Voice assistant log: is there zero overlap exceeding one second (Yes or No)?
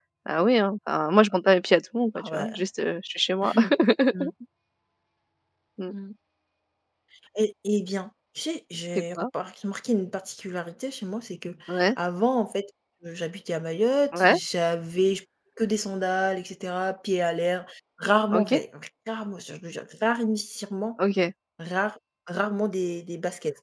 Yes